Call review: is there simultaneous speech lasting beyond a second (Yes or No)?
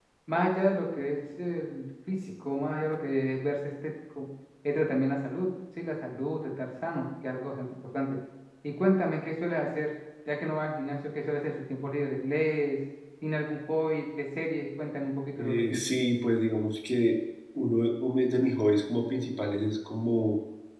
No